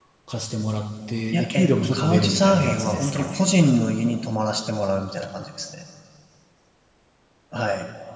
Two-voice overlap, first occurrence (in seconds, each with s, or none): 1.3 s